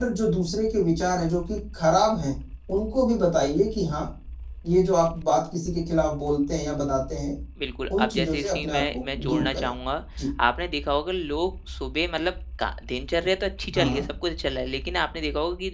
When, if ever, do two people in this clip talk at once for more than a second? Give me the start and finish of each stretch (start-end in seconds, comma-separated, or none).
8.0-9.7